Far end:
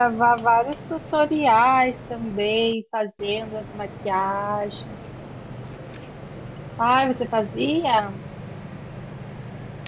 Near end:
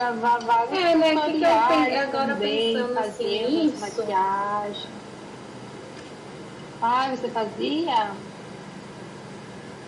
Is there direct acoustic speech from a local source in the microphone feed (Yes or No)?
Yes